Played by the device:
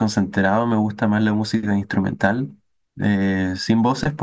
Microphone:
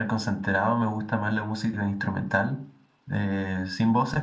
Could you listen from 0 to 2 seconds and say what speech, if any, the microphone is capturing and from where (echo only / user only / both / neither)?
echo only